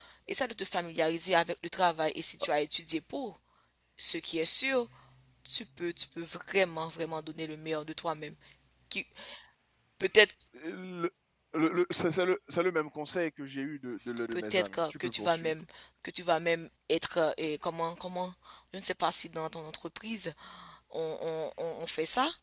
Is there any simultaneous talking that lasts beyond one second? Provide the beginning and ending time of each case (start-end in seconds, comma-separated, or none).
14.3-15.5